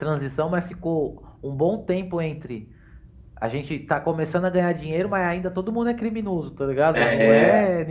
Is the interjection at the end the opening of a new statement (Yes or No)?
No